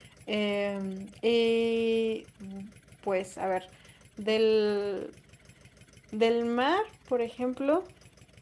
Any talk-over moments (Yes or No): No